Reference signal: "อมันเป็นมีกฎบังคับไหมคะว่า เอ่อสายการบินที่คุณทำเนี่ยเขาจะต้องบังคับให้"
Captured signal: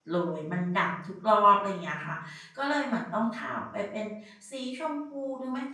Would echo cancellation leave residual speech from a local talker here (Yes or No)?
Yes